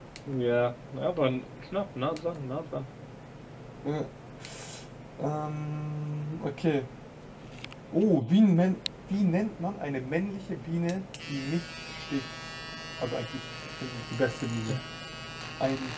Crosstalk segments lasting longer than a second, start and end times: none

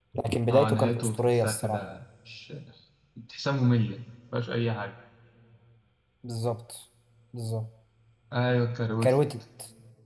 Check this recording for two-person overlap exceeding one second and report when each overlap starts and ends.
0.5-1.9

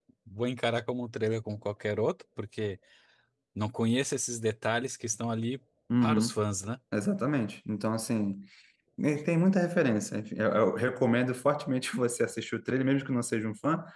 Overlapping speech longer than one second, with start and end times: none

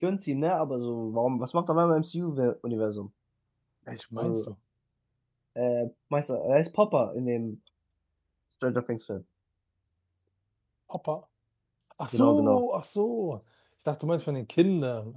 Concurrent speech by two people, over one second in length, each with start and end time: none

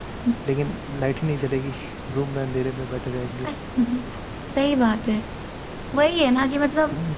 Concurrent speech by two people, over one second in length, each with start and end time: none

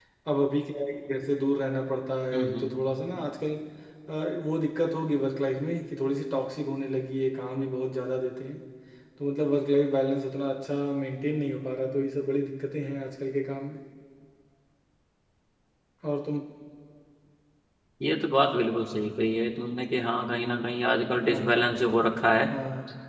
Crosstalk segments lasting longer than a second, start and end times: none

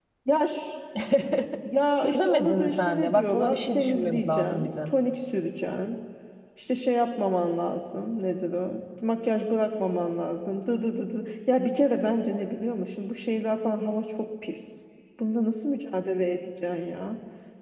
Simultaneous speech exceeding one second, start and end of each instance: 2.0-4.9

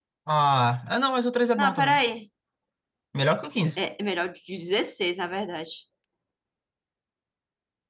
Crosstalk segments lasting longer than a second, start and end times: none

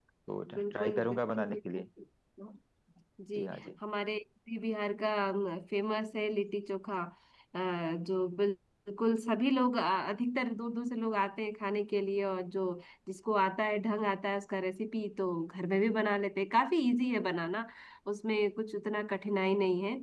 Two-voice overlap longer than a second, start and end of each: 0.5-1.8

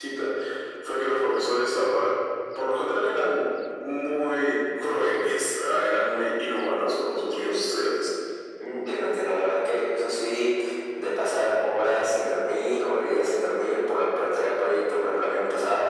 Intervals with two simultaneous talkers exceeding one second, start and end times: none

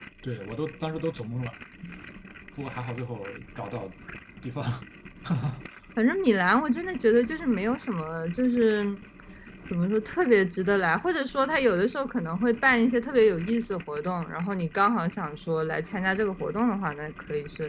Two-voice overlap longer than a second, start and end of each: none

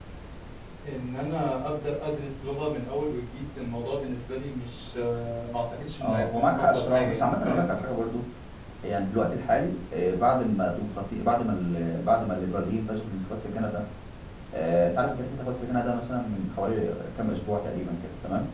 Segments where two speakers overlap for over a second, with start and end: 6.0-7.8

